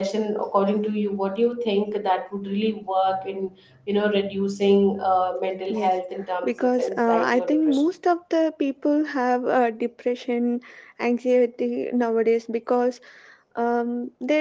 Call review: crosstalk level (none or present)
present